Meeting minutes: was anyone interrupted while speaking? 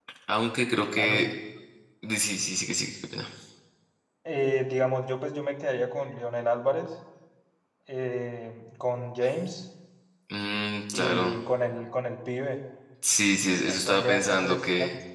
Yes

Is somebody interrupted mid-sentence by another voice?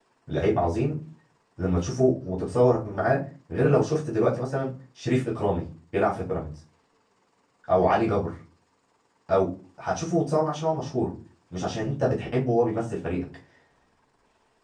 No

